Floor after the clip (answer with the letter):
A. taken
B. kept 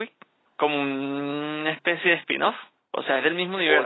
A